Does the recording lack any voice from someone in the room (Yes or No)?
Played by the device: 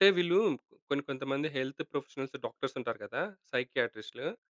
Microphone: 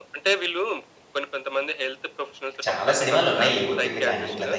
No